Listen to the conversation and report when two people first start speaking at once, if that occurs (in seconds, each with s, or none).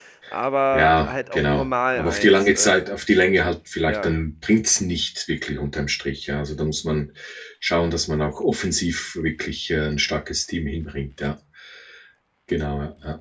0.7 s